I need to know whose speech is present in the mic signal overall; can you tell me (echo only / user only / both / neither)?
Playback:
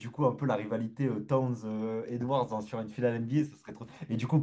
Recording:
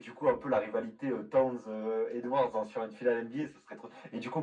echo only